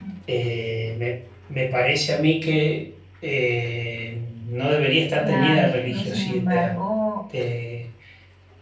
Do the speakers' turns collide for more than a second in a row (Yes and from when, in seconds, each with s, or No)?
Yes, from 5.2 s